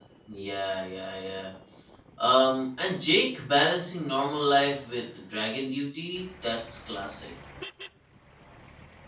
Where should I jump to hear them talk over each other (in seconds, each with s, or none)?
none